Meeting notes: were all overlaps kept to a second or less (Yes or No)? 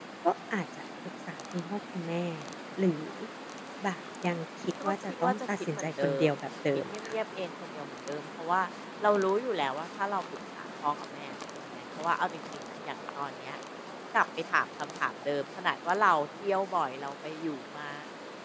No